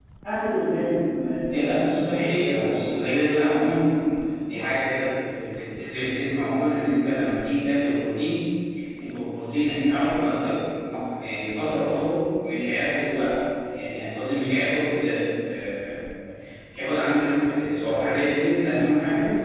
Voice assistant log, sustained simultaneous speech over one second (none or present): present